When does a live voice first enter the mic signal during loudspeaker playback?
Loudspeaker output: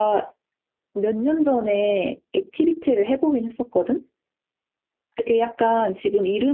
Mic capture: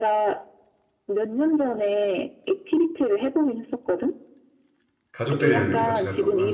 5.1 s

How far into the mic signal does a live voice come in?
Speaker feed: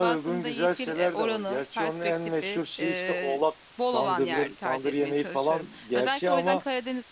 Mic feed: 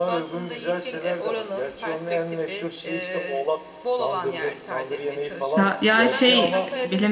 5.5 s

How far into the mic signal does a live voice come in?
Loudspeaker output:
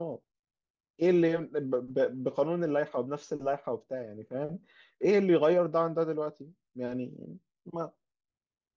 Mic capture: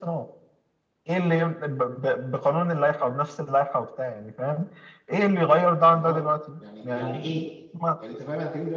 5.9 s

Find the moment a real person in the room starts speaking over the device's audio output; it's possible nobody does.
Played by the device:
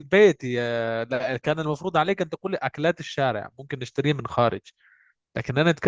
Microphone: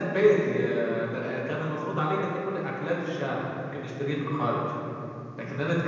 none

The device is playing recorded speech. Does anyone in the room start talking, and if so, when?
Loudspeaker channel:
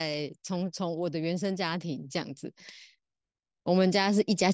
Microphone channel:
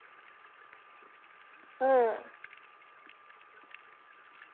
1.8 s

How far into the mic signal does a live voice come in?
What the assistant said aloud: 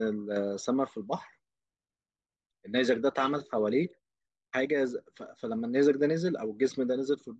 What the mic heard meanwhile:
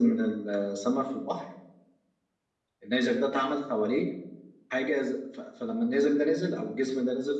none

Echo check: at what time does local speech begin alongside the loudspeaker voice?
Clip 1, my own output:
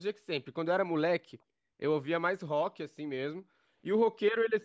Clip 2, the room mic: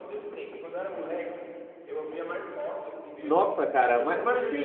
3.2 s

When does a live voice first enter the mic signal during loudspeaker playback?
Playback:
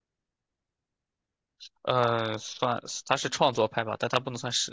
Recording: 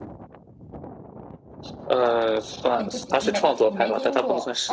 2.7 s

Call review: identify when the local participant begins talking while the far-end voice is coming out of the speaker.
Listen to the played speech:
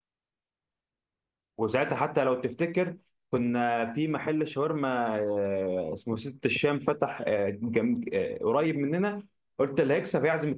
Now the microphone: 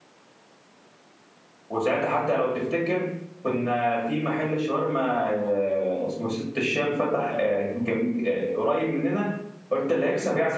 none

